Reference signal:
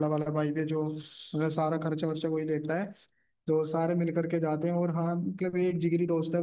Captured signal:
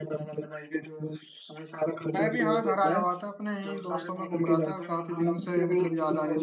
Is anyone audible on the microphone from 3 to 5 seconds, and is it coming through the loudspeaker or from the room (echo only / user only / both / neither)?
both